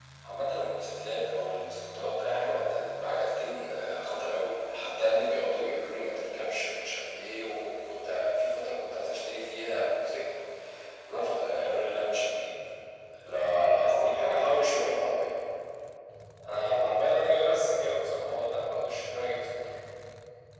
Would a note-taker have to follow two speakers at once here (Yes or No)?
Yes